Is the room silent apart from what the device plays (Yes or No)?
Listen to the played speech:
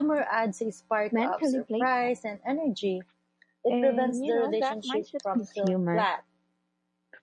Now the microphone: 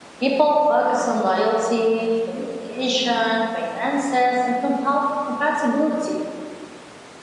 No